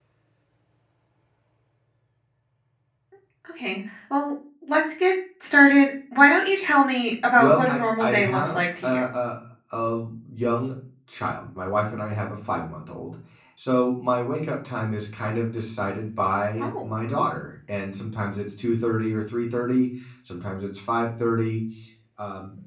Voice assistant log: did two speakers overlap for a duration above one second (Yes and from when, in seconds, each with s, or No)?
Yes, from 7.4 s